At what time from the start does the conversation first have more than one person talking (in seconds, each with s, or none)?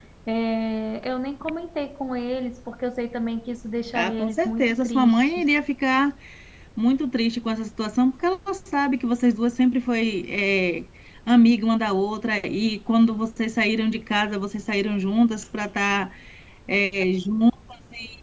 4.0 s